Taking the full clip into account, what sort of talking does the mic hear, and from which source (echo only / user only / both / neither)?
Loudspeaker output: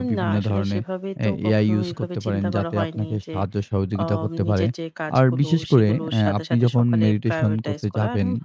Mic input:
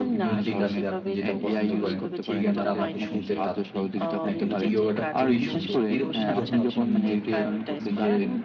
both